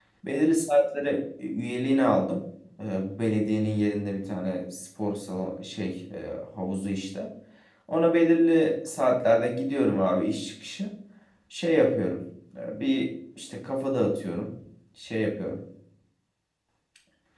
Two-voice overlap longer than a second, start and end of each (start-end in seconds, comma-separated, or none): none